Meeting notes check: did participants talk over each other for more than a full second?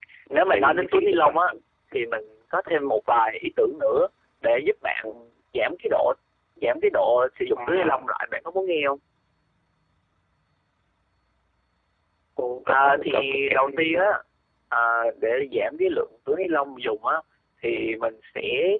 Yes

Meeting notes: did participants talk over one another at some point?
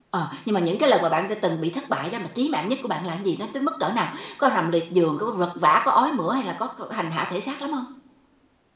No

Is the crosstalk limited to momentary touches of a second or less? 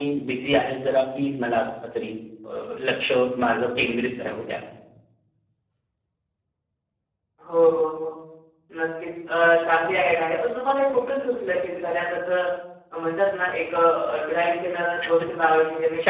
Yes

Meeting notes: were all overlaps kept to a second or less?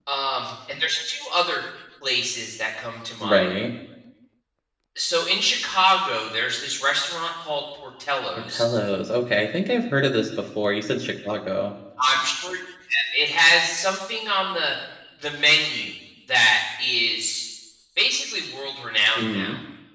Yes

